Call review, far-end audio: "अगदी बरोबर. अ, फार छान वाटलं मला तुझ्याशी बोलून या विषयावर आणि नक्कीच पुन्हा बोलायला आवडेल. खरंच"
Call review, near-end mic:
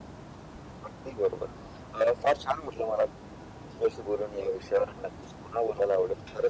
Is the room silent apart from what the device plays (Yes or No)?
Yes